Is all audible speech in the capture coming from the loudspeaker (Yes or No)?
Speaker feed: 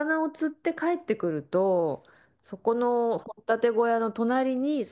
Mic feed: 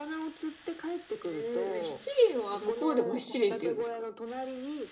No